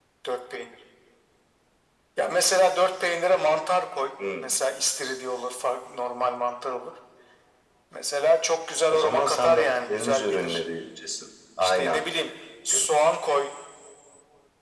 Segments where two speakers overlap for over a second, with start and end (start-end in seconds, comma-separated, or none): 8.9-10.6